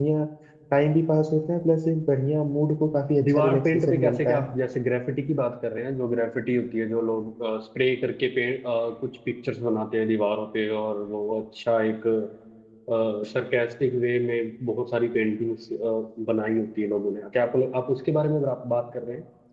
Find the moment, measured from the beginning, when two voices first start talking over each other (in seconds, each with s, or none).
3.2 s